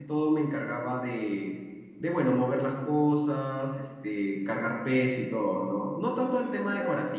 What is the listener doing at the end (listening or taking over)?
taking over